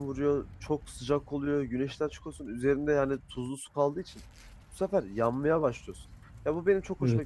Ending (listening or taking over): listening